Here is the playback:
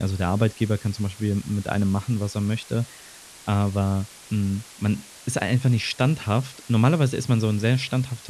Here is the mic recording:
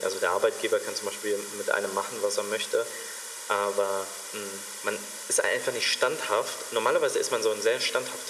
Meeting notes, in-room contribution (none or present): none